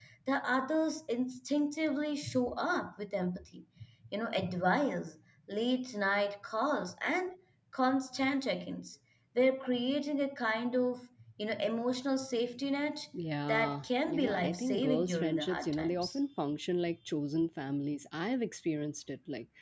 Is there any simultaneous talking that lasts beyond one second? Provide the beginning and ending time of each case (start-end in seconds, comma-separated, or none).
13.5-16.2